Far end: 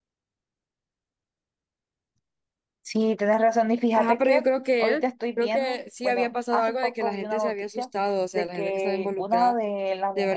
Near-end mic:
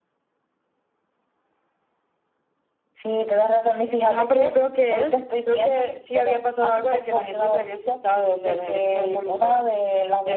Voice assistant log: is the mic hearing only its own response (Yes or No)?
Yes